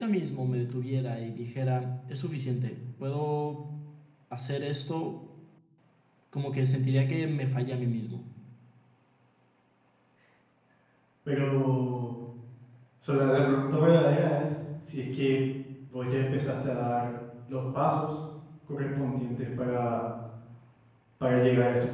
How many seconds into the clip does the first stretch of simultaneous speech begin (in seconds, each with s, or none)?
none